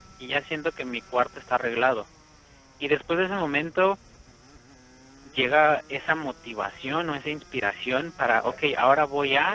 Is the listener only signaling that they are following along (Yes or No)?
Yes